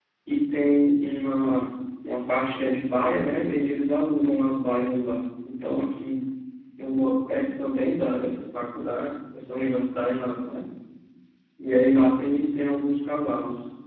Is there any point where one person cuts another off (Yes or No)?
No